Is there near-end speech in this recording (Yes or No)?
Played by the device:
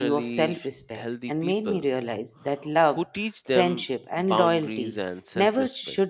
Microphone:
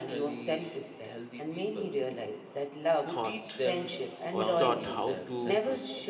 Yes